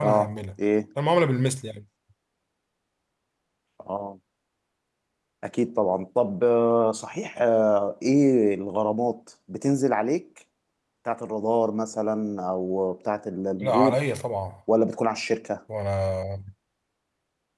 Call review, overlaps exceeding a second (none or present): none